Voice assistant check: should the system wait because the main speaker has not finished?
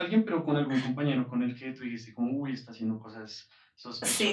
No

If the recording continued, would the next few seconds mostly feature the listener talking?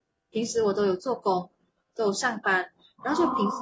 No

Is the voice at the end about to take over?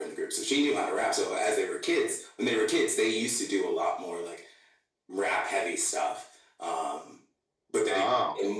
No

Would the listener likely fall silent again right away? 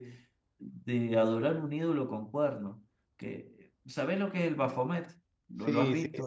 No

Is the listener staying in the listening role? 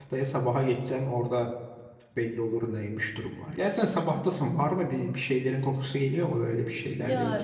No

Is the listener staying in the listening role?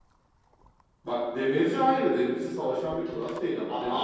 Yes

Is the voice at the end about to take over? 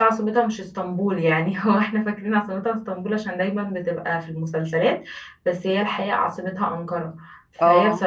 No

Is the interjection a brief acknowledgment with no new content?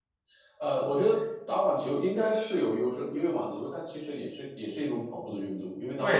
No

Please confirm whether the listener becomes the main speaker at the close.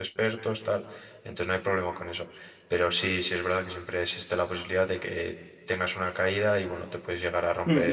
Yes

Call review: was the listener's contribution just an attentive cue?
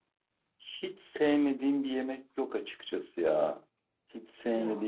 Yes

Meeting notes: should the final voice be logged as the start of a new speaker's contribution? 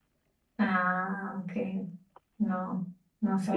Yes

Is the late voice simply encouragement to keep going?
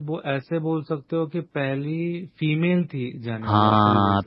No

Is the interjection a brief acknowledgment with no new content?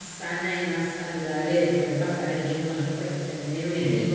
Yes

